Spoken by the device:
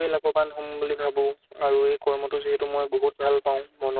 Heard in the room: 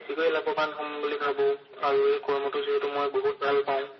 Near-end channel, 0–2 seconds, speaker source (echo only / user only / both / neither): echo only